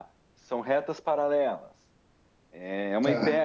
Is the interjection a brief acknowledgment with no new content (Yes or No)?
Yes